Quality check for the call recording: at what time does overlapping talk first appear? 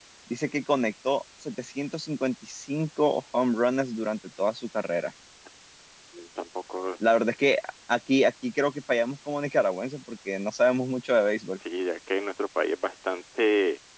none

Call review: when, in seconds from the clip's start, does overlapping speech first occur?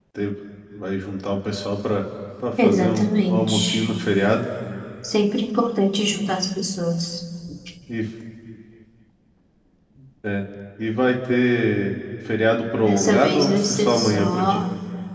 2.6 s

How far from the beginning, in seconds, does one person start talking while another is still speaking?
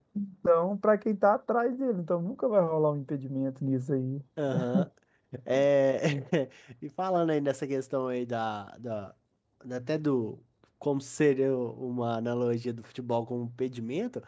none

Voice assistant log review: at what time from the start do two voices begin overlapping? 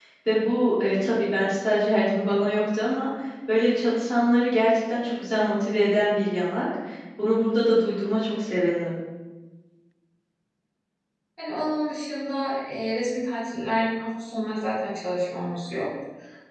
none

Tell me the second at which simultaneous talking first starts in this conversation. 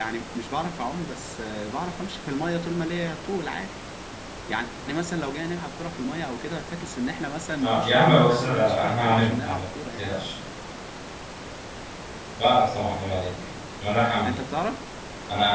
7.6 s

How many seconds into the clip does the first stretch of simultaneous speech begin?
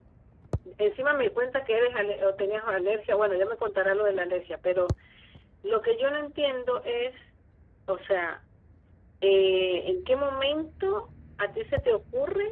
none

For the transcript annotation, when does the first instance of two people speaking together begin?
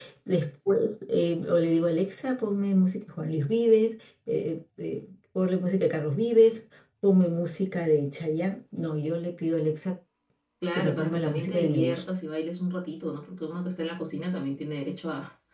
10.7 s

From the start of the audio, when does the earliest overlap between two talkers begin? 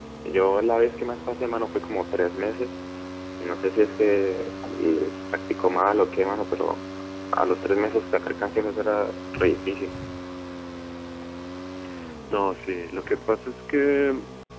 none

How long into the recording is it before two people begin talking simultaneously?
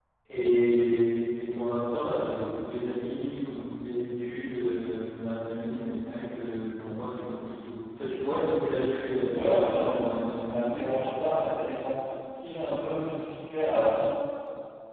9.3 s

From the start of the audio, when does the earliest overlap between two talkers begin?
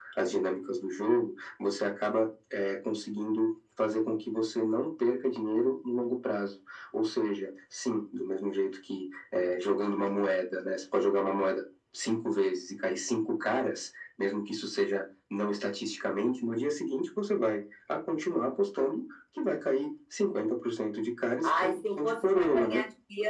21.4 s

